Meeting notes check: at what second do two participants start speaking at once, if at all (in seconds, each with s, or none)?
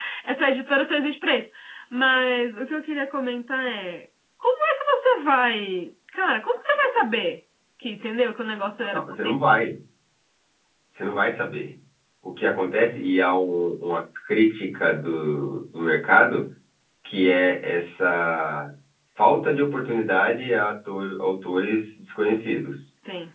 none